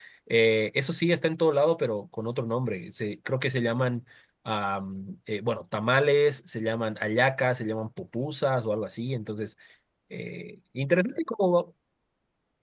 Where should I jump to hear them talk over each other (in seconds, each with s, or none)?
none